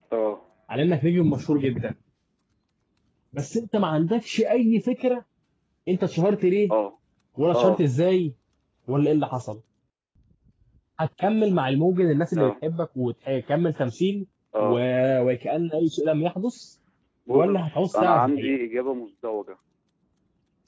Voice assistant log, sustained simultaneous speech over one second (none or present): present